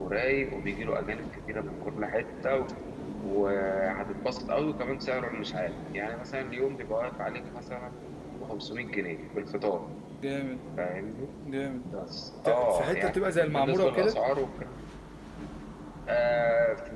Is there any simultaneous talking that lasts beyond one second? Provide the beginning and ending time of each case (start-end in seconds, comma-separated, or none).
12.4-14.2